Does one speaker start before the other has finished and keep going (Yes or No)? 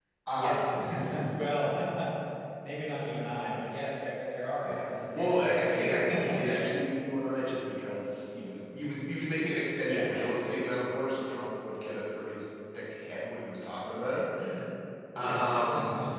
Yes